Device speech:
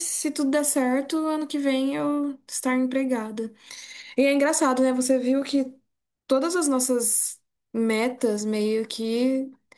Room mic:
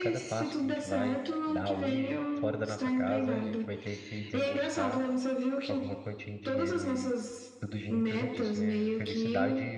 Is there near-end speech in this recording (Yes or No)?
Yes